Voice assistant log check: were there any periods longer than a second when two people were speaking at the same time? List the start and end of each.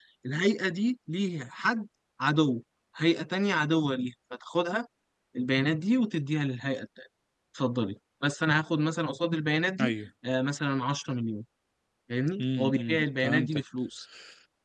12.4-13.6

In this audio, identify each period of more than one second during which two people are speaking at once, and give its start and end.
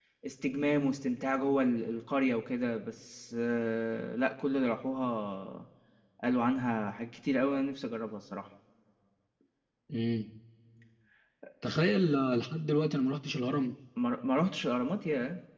none

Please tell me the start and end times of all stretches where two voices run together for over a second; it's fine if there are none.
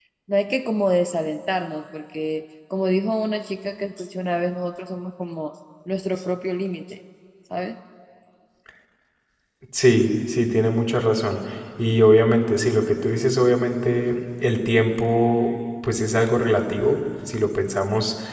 none

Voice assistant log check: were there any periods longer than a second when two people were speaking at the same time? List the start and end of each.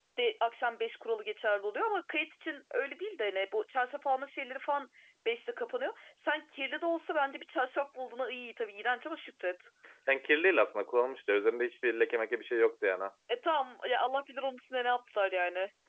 none

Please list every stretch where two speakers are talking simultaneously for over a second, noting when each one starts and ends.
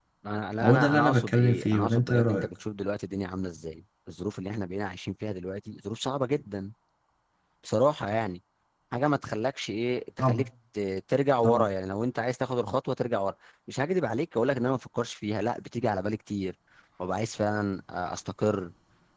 0.6-2.5

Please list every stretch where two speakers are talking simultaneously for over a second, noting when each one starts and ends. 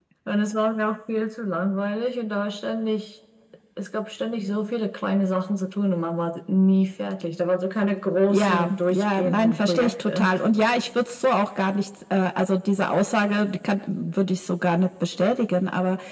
8.3-10.3

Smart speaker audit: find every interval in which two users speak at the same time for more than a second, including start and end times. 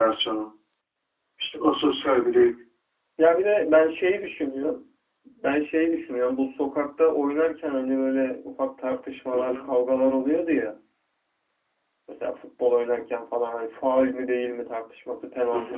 none

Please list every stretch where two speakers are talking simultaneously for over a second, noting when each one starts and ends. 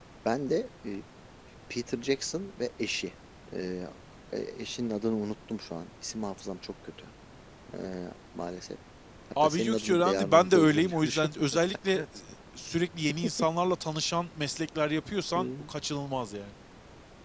9.4-11.3

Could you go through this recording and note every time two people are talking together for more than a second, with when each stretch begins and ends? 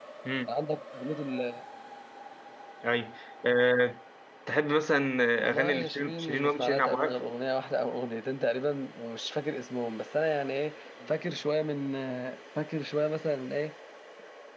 5.5-7.1

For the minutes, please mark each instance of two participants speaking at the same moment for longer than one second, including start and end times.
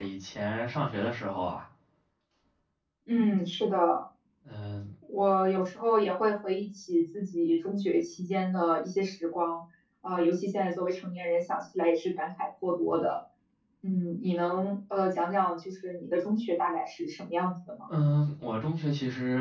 none

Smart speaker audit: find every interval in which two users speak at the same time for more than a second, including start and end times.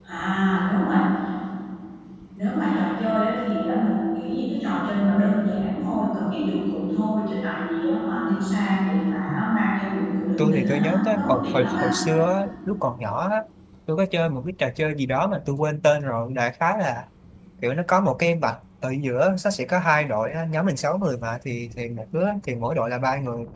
10.4-11.9

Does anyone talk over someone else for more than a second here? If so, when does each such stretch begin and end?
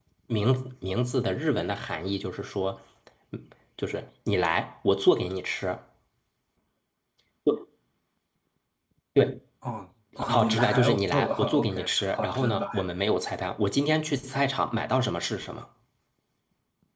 10.3-12.7

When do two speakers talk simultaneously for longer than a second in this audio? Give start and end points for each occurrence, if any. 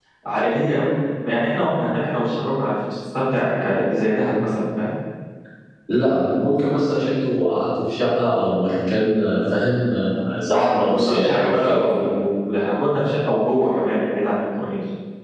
10.5-11.8

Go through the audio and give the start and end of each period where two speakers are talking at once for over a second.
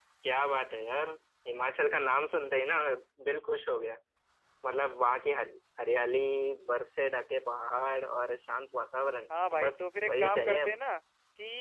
9.6-10.8

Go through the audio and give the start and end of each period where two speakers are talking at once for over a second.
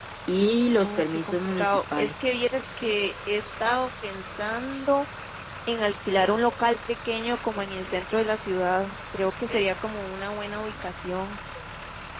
0.8-2.3

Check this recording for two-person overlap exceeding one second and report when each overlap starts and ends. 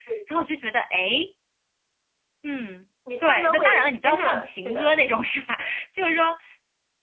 3.2-4.9

